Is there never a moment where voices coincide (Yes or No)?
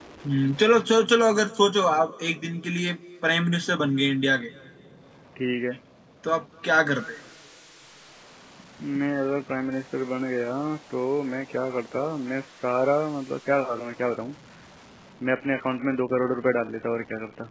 Yes